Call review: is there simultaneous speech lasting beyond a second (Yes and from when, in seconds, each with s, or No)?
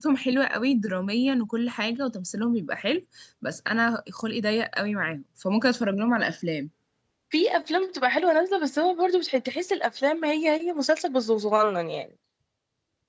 No